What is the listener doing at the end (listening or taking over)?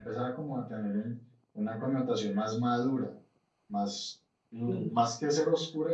listening